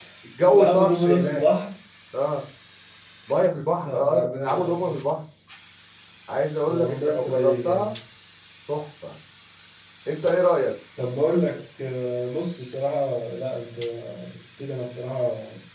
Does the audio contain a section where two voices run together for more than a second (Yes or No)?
Yes